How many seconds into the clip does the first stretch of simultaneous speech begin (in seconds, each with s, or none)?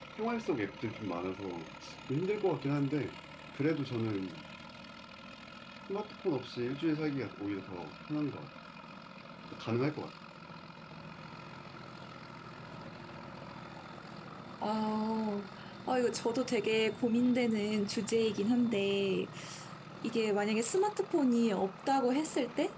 none